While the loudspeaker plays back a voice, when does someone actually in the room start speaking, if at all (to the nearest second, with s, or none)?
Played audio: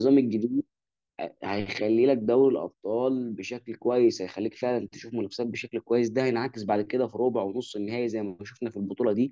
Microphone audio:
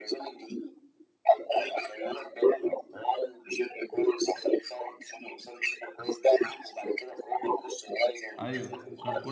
8 s